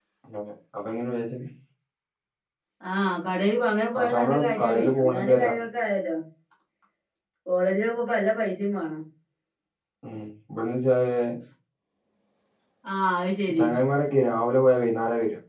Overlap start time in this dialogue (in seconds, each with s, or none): 3.9 s